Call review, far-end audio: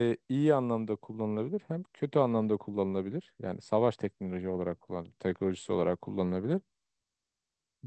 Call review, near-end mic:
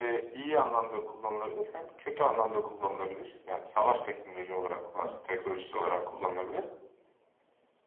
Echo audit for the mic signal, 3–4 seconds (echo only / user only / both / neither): echo only